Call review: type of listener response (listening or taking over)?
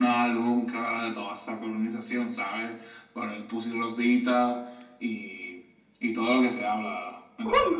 taking over